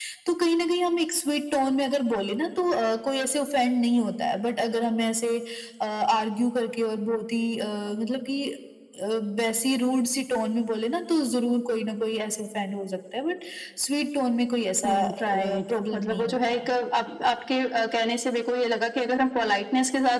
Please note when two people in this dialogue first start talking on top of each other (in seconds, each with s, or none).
14.8 s